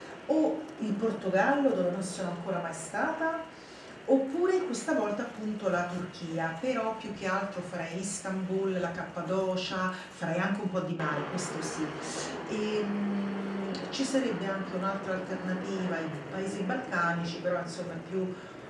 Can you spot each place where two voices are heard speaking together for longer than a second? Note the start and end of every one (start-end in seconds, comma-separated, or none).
none